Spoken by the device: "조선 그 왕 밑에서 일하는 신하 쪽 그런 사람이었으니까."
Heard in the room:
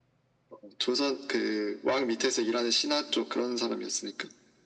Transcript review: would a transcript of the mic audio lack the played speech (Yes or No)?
No